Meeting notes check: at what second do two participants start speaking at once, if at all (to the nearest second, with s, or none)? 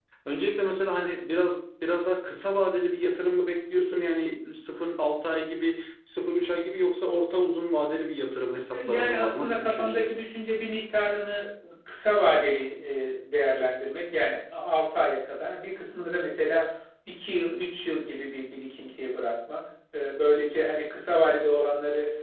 9 s